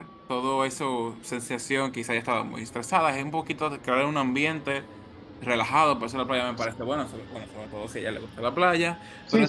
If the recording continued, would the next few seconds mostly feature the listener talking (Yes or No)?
Yes